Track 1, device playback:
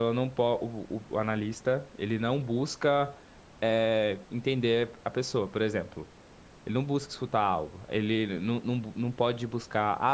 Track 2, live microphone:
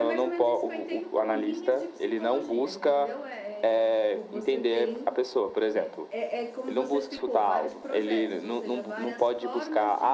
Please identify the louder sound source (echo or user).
echo